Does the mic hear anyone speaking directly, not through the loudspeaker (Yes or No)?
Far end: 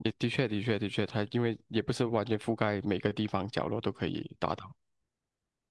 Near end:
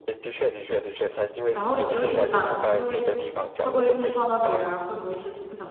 Yes